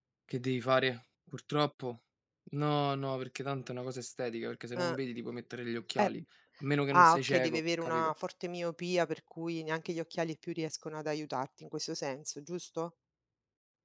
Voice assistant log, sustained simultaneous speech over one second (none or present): present